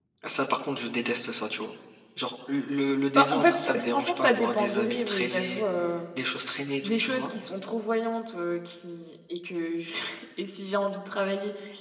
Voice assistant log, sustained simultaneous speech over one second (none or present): present